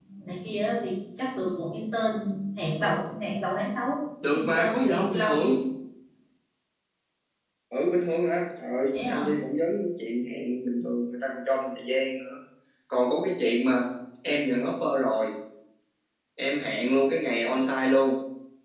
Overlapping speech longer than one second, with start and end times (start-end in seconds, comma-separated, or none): 4.3-5.5